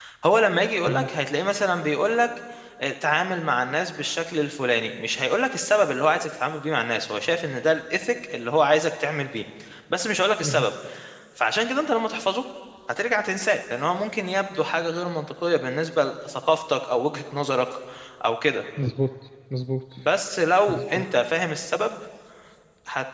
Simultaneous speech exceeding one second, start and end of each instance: none

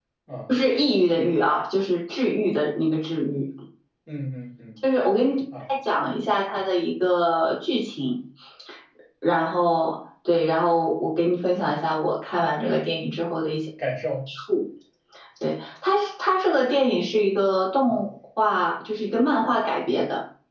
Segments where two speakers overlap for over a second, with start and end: none

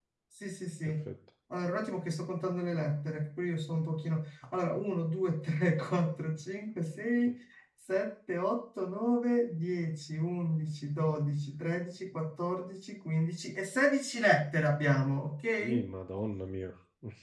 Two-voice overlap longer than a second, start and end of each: none

